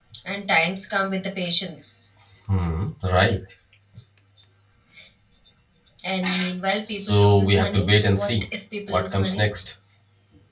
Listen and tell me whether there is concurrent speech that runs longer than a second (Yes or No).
Yes